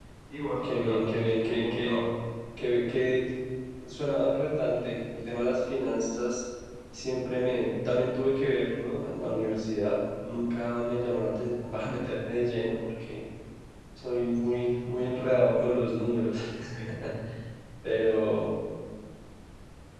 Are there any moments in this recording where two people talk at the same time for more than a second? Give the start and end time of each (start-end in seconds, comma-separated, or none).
0.6-2.0